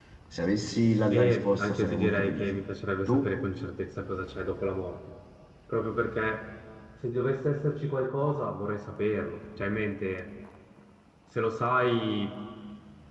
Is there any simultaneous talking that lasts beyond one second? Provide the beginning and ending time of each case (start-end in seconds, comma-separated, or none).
1.1-2.6